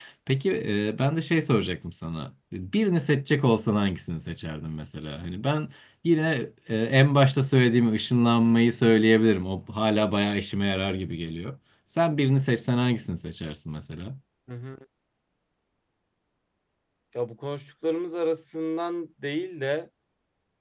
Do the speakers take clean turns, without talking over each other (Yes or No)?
Yes